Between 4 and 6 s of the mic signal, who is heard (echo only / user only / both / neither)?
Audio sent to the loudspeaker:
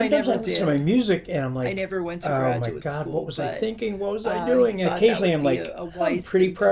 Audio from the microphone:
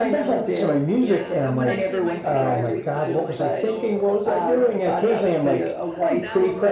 both